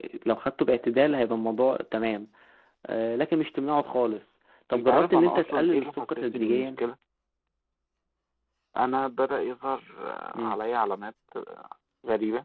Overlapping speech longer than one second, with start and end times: 4.7-6.7

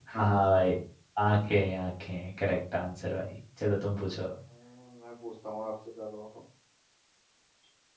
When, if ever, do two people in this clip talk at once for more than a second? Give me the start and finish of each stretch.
none

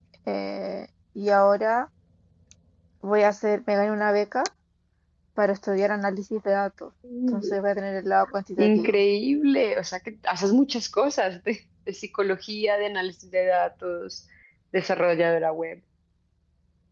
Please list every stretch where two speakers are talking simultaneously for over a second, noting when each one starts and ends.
none

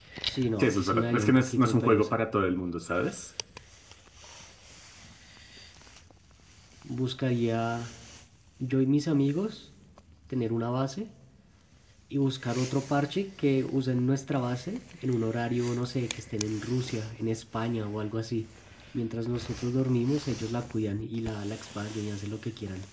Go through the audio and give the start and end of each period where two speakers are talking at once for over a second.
0.6-2.1

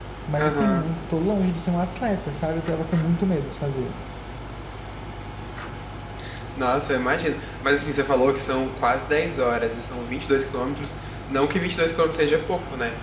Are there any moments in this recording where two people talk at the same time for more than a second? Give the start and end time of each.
none

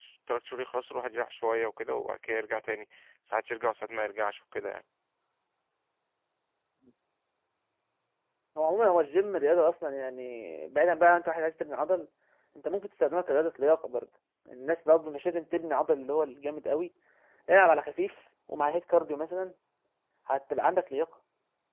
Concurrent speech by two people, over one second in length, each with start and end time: none

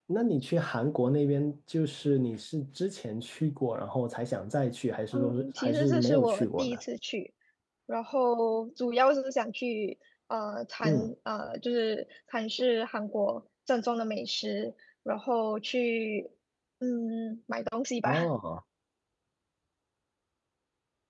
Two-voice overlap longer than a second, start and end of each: 5.1-6.8

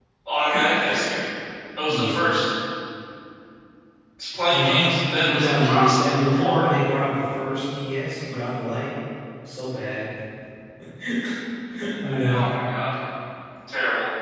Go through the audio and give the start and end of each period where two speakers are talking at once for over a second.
4.5-6.7

